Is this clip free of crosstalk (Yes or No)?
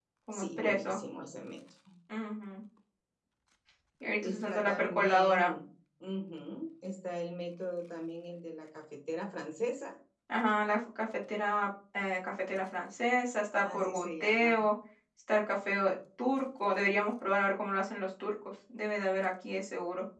No